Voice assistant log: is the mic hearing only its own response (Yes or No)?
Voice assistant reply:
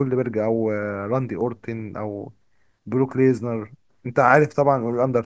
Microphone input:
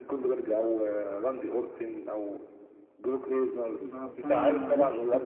No